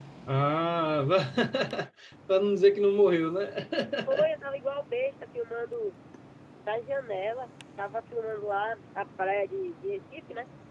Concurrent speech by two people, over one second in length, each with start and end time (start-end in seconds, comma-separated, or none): none